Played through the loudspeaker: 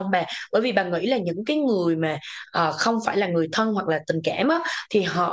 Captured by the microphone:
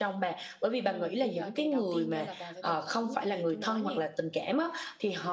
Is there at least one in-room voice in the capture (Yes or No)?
Yes